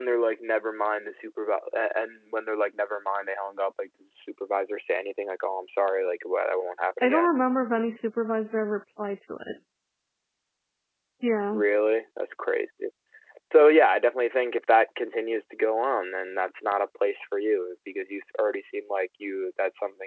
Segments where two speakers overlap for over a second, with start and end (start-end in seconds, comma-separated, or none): none